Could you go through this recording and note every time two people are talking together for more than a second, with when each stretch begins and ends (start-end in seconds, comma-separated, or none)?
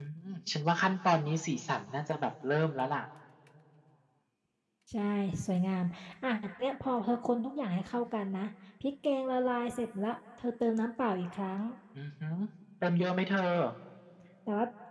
none